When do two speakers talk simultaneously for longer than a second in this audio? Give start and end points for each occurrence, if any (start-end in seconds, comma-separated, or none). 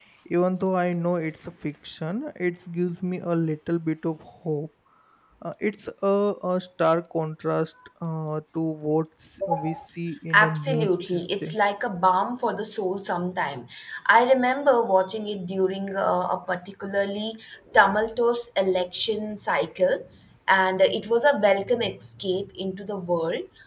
10.3-11.6